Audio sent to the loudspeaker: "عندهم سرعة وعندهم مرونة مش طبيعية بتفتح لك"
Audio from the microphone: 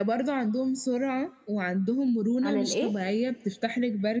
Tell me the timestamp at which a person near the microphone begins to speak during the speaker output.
2.4 s

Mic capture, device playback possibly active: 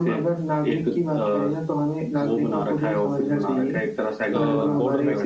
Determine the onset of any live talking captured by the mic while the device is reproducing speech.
4.3 s

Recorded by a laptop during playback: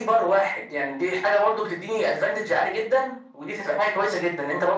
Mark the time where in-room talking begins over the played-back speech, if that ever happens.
none

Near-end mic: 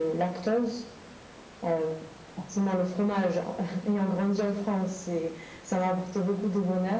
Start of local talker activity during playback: none

